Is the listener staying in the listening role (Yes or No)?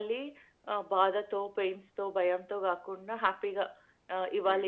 Yes